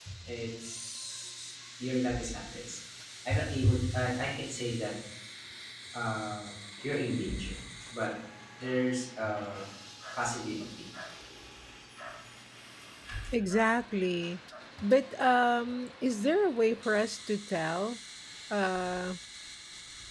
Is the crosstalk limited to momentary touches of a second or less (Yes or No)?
Yes